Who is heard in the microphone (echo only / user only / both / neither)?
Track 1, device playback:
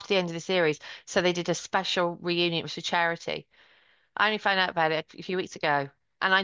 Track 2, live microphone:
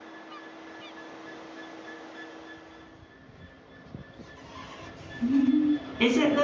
user only